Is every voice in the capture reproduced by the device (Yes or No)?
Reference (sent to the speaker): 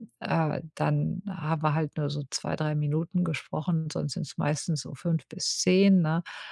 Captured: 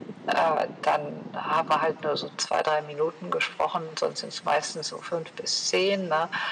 Yes